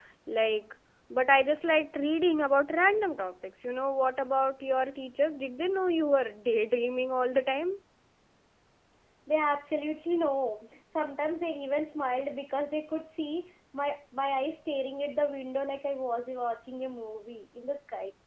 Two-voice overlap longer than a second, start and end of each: none

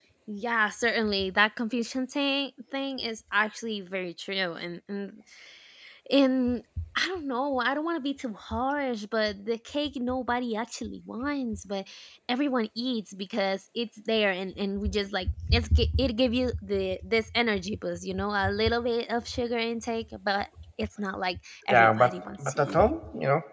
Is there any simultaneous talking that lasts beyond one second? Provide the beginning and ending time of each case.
21.7-22.9

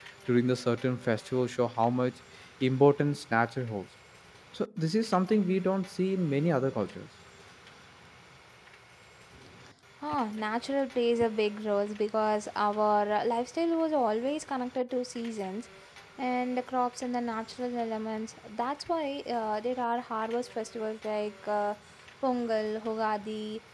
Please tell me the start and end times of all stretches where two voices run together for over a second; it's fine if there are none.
none

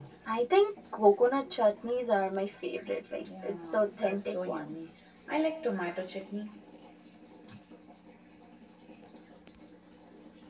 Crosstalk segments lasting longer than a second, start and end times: 3.2-4.7

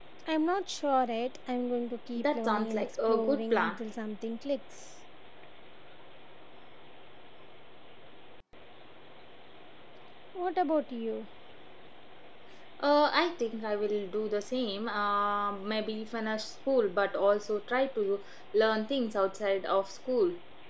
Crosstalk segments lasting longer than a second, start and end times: 2.2-3.8

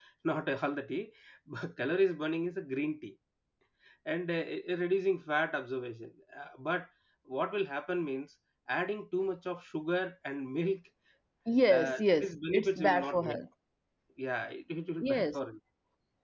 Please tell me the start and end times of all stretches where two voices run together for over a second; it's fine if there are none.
11.7-13.4

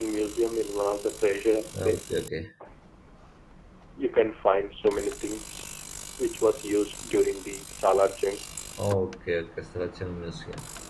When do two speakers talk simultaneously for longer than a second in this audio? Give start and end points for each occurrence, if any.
none

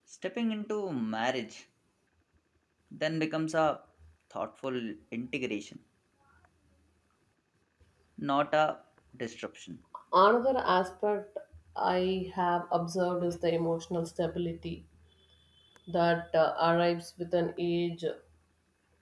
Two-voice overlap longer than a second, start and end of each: none

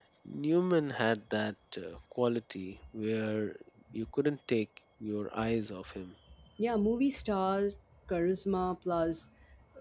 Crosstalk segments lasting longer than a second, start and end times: none

